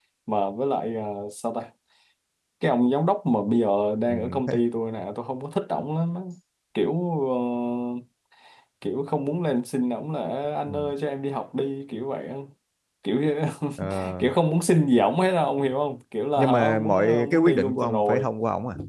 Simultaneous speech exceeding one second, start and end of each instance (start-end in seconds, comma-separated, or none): 16.4-18.3